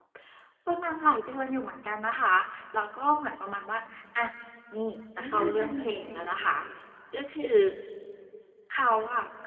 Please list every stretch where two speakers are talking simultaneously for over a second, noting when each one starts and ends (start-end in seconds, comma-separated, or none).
5.2-6.6